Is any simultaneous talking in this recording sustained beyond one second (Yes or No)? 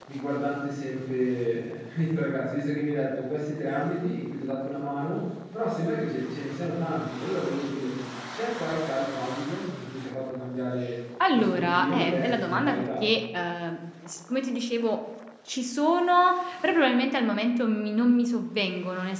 Yes